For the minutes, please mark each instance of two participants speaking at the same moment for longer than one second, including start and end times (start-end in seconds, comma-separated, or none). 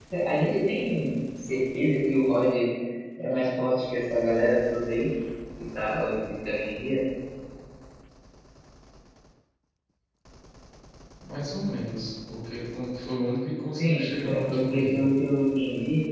13.7-15.1